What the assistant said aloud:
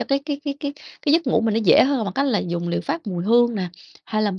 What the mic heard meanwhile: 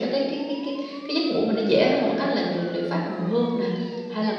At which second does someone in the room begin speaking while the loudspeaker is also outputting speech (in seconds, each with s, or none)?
none